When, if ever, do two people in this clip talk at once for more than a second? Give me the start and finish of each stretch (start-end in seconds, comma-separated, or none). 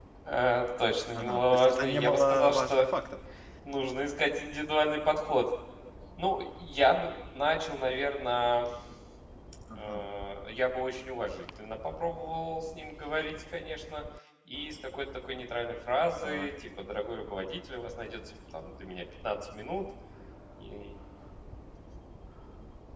1.1-2.9